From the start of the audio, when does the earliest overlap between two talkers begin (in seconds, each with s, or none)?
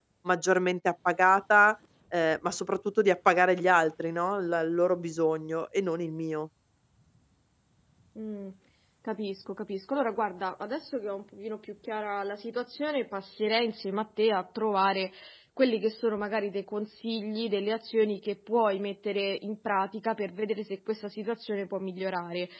none